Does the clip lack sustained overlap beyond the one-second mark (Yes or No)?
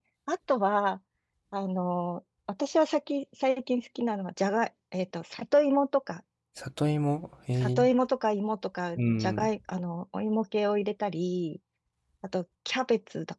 Yes